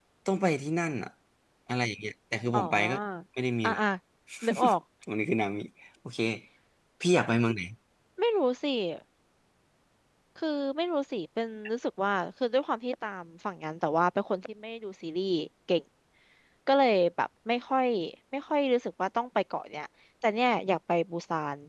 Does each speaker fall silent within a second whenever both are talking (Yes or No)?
Yes